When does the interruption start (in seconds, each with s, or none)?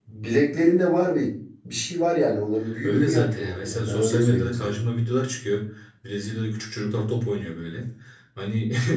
2.8 s